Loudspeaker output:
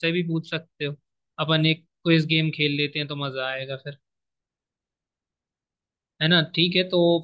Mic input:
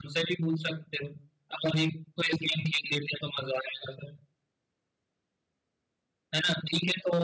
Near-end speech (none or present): none